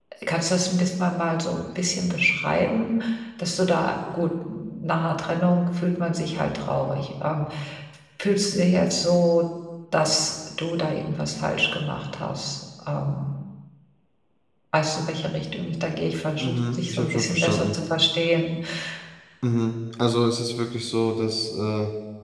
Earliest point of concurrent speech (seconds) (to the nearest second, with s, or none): 16 s